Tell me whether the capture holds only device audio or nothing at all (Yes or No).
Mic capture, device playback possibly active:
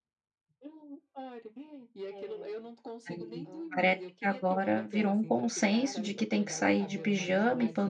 No